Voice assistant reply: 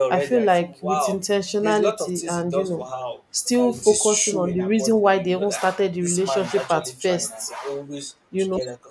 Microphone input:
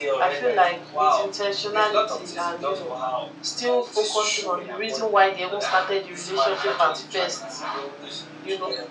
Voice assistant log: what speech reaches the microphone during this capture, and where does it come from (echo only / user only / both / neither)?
echo only